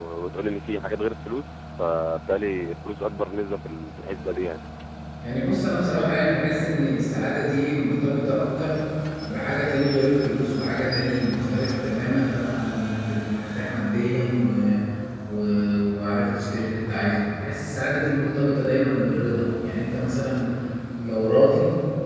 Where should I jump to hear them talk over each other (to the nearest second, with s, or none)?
none